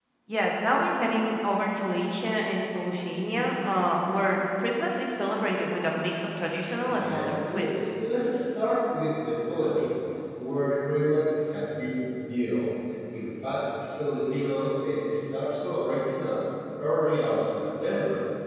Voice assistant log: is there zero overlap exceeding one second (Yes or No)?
No